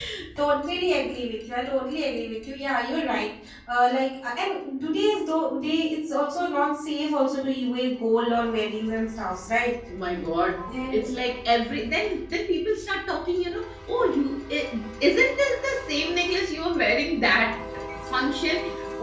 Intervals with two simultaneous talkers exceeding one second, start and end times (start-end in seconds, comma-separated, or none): none